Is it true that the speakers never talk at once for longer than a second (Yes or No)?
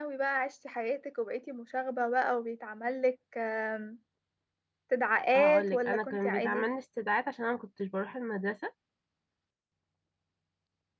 No